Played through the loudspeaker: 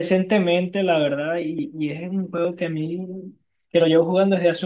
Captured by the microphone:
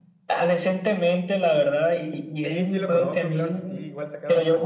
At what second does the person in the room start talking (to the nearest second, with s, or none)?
2 s